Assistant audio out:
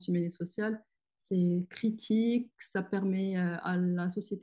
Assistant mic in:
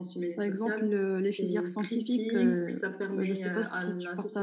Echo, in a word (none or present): present